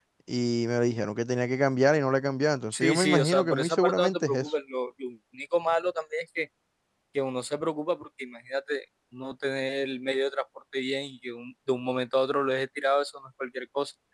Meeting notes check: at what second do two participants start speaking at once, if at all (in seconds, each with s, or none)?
2.7 s